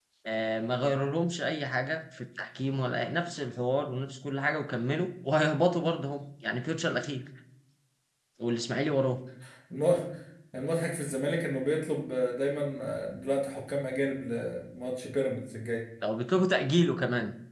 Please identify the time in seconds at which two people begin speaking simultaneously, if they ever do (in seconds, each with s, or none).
none